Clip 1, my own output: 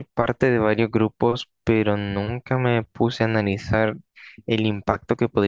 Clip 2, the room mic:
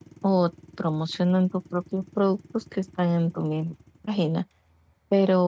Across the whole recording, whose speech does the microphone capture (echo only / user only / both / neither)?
user only